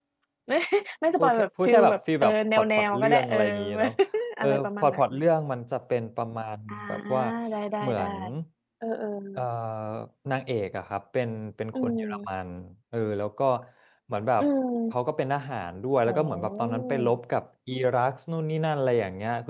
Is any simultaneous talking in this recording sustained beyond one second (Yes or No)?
Yes